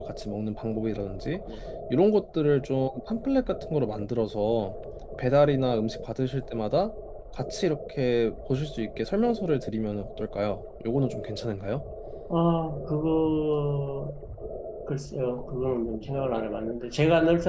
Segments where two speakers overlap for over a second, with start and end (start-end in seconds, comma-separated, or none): none